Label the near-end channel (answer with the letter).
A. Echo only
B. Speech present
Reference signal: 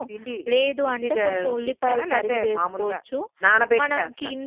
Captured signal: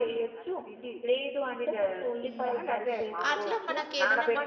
B